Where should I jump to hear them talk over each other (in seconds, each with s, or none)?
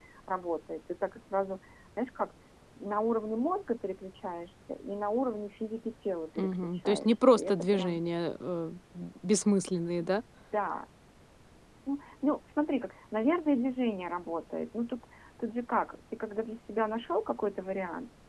6.4 s